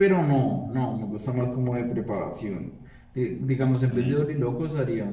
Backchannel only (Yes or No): Yes